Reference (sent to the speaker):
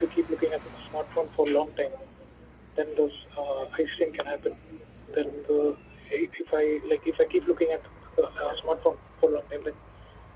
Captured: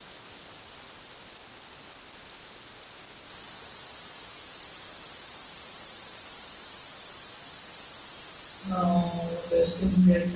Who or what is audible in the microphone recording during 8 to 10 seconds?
user only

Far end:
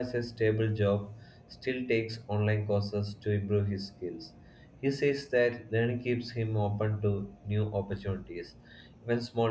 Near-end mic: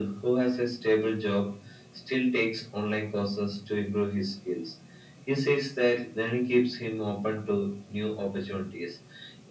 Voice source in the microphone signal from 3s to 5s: echo only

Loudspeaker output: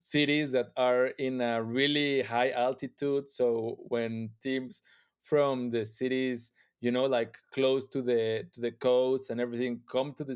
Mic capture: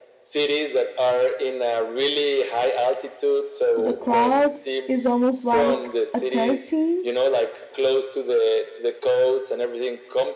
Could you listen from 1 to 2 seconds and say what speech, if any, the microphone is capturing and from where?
echo only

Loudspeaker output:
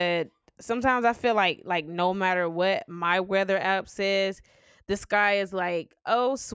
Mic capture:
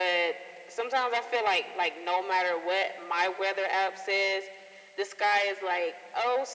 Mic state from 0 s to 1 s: echo only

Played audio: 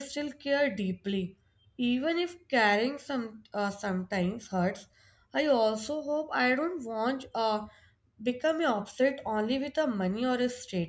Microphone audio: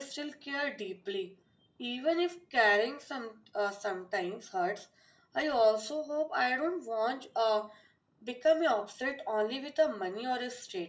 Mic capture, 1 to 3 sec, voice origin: echo only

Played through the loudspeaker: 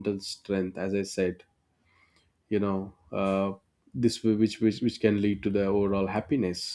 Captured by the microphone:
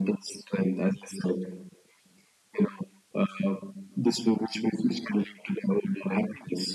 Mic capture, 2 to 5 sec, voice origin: echo only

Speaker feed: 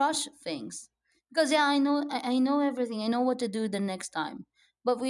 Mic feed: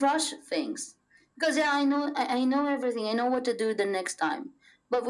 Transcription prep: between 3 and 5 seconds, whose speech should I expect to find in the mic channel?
echo only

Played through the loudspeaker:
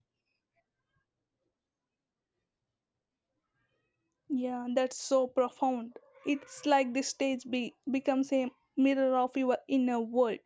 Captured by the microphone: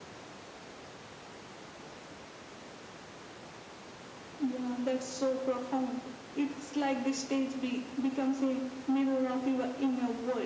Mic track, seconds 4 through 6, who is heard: echo only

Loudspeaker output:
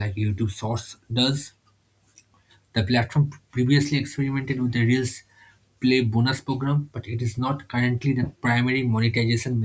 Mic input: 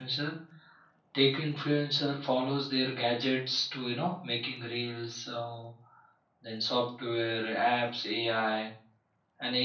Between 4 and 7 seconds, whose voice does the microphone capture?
user only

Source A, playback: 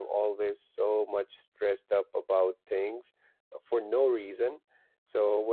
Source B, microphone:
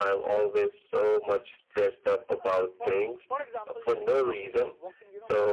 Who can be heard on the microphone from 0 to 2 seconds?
echo only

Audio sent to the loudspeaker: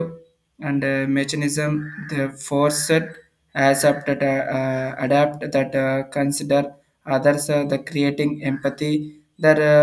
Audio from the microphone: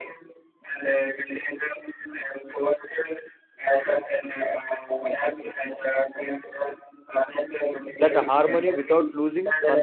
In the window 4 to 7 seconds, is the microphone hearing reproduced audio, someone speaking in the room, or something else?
echo only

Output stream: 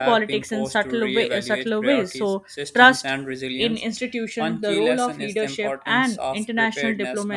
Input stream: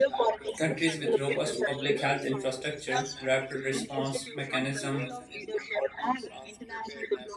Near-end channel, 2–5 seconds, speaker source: both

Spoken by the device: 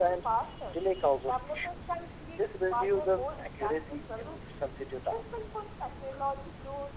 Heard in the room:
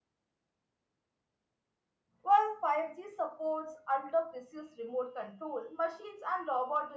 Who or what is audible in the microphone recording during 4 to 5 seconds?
user only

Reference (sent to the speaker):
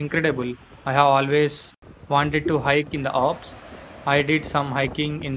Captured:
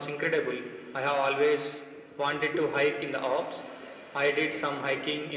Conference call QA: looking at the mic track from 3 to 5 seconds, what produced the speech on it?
echo only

